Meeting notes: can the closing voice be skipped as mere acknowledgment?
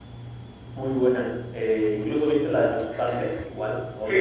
No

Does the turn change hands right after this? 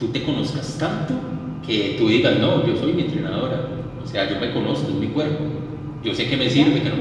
No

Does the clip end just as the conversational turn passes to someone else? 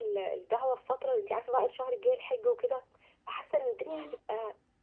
No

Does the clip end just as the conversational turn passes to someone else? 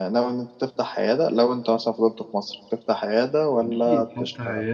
Yes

